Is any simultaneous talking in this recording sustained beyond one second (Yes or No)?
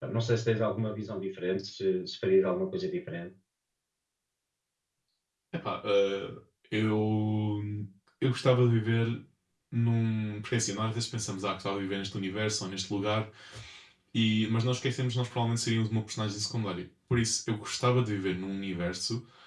No